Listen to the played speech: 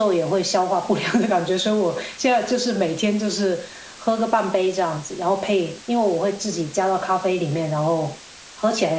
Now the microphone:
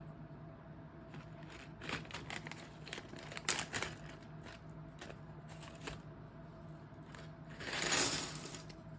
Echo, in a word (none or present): none